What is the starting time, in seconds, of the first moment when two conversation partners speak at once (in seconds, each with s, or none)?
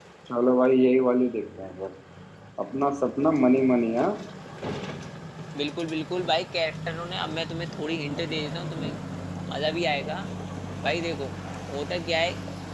none